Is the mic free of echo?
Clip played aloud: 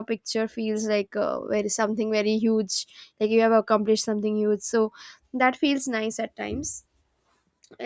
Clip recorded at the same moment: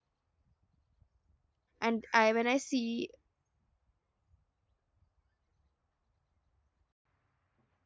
Yes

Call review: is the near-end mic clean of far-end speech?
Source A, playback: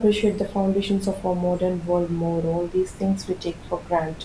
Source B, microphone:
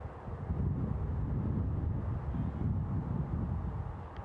Yes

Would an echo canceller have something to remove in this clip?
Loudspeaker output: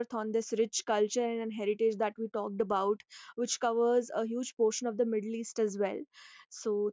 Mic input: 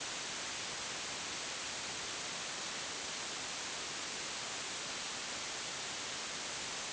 No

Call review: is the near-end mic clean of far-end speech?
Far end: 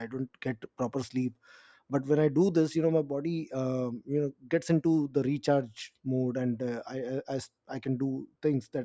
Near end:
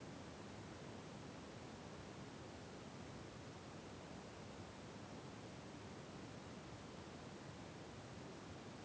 Yes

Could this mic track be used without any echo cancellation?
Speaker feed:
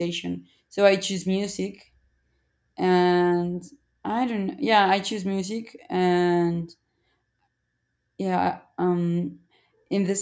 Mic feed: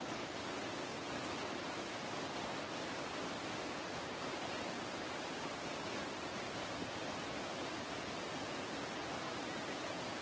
Yes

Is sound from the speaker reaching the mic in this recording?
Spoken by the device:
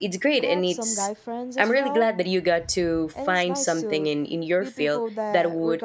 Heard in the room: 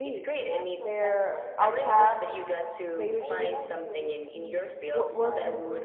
Yes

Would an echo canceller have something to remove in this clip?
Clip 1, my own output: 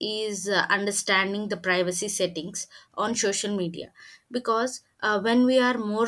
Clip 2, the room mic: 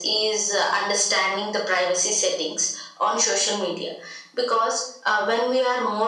Yes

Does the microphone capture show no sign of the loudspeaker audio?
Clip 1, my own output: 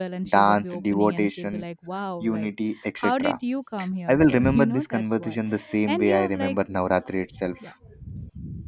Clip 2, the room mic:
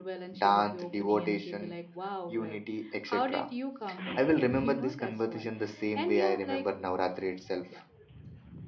No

